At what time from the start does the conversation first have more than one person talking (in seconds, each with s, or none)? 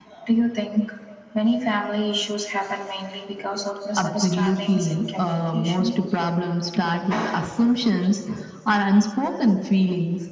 4.0 s